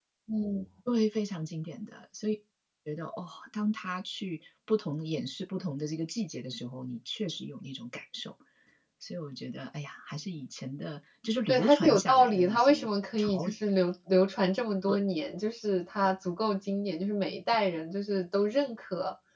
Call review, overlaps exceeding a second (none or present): present